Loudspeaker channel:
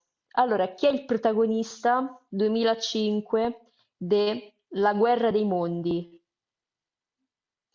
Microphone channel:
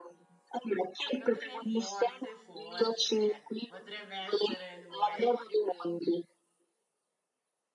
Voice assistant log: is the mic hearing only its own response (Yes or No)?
No